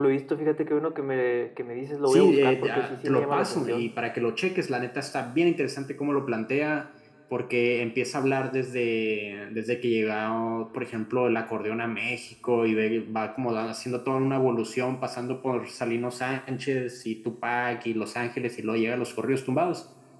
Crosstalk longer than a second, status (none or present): present